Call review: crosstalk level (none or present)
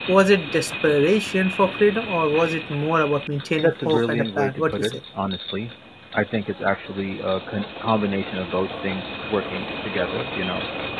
present